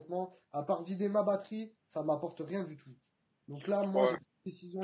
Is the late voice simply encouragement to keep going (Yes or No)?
Yes